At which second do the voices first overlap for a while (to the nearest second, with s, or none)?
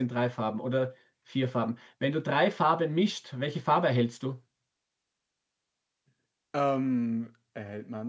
none